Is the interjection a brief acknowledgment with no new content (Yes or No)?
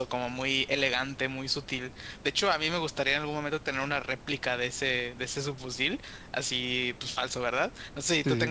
Yes